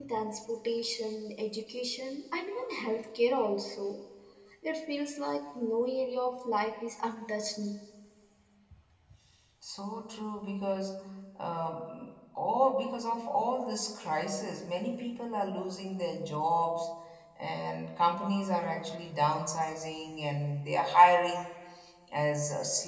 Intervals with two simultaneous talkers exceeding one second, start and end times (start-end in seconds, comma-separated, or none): none